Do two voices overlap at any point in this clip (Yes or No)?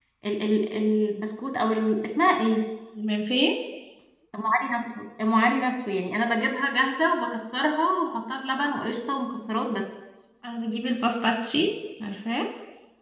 No